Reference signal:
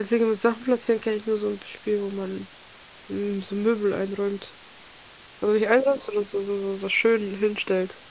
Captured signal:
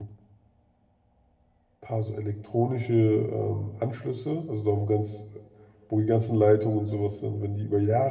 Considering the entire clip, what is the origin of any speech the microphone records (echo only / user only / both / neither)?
user only